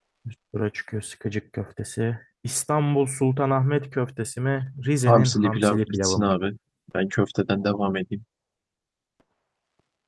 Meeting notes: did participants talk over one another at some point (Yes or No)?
Yes